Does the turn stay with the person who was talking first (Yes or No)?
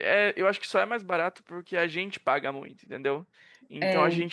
Yes